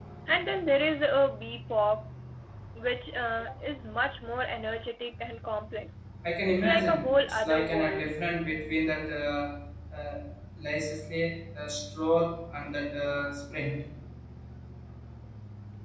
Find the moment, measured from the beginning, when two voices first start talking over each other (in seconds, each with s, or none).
6.5 s